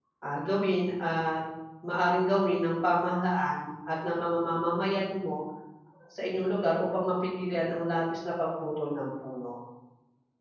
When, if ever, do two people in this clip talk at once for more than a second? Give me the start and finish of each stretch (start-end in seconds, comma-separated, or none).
none